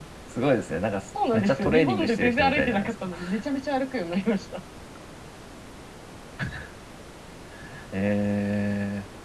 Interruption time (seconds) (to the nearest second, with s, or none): 1 s